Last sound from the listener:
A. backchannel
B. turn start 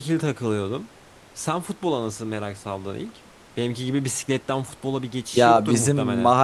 B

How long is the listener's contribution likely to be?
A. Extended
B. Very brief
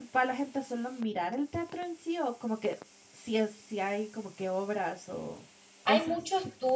A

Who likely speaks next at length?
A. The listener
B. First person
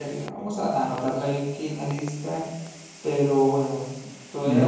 A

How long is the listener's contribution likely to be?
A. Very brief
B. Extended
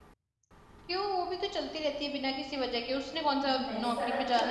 B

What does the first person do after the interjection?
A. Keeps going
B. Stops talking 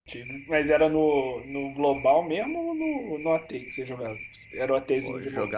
B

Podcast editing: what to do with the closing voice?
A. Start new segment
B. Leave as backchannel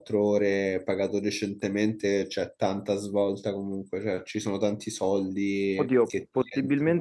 A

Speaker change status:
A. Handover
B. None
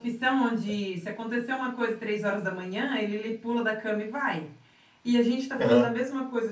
B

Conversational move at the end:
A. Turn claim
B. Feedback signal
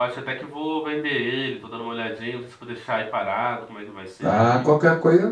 A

